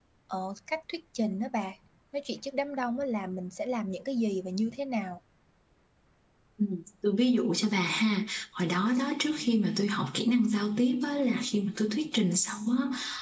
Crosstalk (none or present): none